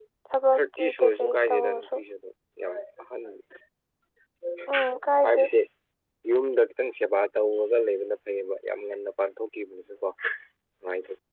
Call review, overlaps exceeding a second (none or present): present